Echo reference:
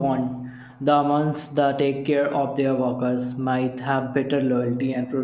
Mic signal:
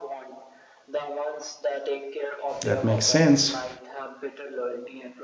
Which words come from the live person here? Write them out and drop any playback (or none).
That makes sense.